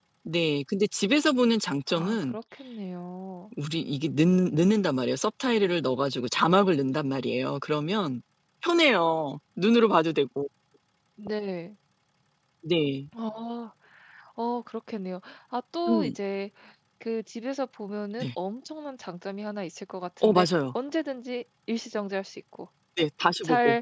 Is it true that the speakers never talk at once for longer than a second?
Yes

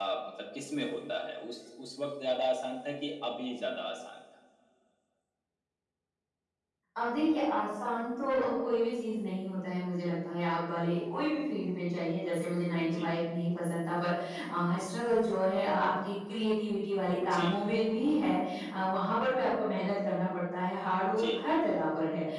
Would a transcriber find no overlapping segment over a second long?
Yes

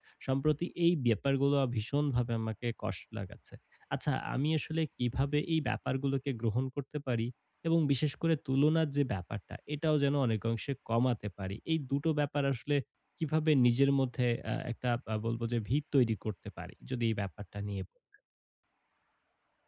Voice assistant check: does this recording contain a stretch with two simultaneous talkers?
No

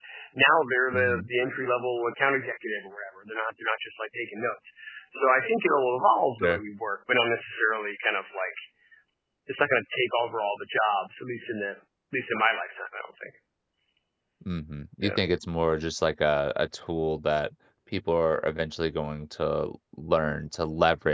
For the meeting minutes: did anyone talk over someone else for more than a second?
No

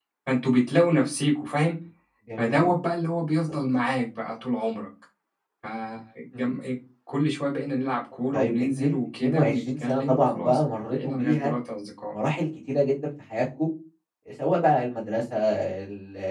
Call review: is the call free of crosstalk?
No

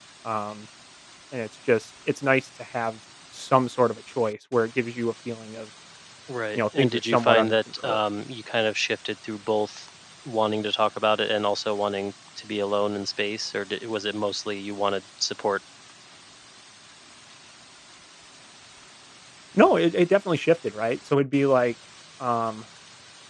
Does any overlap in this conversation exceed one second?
Yes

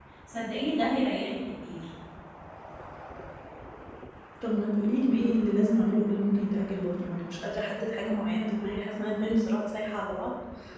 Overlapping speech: No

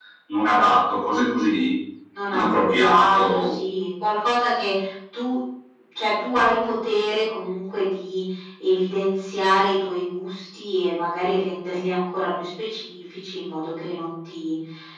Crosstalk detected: Yes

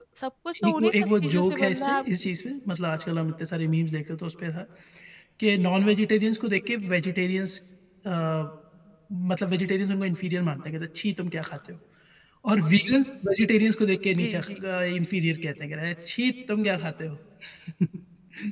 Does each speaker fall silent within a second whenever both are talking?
No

